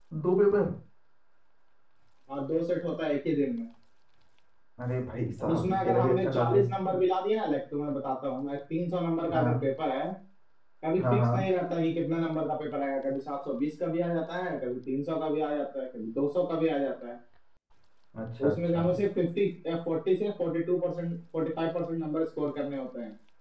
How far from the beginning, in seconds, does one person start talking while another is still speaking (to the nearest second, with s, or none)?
5 s